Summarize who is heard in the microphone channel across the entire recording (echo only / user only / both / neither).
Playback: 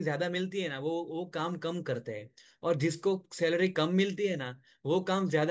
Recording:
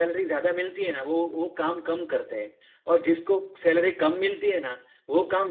echo only